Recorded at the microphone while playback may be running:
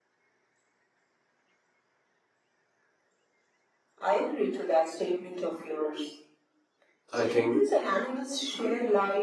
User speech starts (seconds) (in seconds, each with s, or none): 7.1 s